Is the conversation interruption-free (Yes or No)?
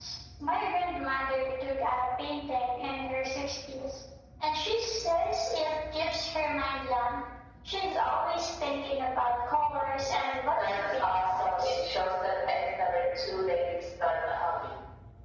No